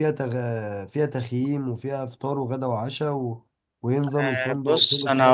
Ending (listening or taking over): taking over